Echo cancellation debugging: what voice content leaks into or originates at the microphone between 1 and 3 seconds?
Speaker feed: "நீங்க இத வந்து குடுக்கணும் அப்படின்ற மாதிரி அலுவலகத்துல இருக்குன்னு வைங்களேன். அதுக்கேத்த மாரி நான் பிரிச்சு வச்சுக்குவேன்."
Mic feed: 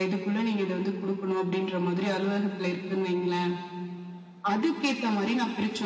echo only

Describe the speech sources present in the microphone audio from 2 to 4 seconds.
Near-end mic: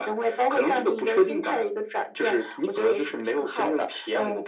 echo only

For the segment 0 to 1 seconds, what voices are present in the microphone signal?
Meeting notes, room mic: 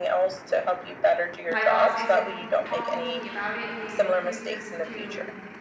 echo only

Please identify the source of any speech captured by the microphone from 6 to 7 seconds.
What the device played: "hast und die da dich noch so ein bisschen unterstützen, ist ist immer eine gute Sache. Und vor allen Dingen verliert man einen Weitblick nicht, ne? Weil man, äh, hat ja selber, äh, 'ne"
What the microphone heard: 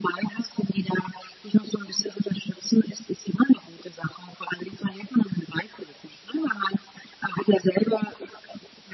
echo only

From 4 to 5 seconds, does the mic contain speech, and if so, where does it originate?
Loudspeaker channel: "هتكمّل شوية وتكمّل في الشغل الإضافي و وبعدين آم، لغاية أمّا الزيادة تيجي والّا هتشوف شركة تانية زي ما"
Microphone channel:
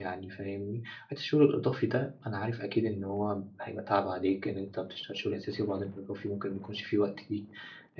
user only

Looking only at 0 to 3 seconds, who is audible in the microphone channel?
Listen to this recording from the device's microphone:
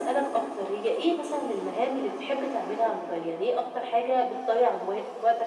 echo only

